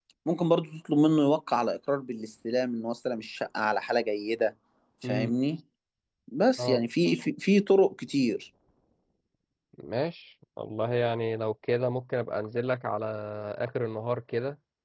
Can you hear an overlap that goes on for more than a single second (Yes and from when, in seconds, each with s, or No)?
No